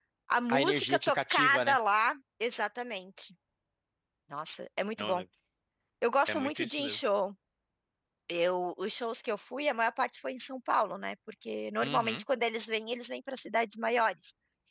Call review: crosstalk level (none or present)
present